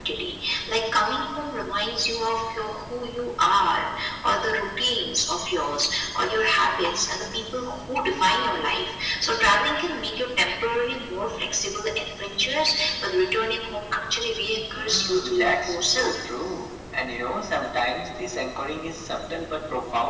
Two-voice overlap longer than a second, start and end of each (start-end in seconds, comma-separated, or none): 14.7-16.2